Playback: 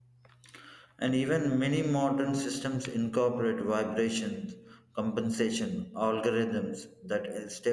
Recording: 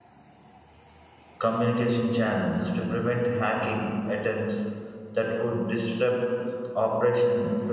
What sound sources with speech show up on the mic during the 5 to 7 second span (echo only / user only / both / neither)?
user only